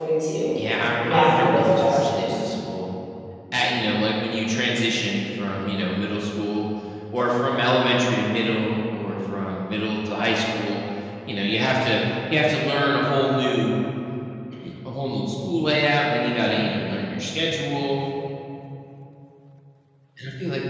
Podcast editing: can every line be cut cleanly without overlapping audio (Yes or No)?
No